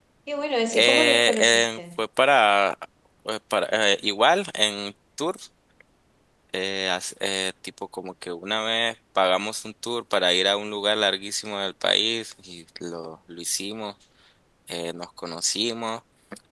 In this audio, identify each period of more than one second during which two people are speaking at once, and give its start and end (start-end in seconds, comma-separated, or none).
0.7-2.0